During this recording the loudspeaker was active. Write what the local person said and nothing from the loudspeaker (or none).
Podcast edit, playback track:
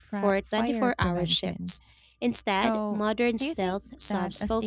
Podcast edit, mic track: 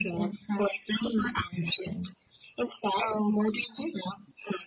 none